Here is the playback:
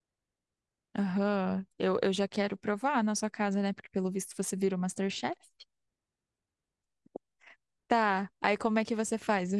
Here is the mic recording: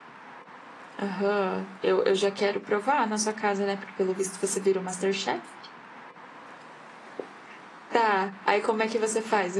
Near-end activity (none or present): none